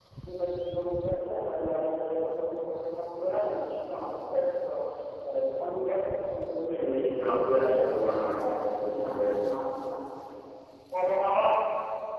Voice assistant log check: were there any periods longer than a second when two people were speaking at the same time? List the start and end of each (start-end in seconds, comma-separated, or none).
6.7-9.5